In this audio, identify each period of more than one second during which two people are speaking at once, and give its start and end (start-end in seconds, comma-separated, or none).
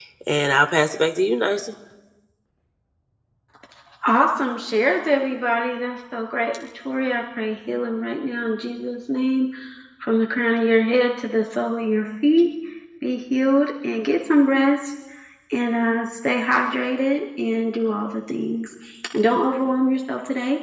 none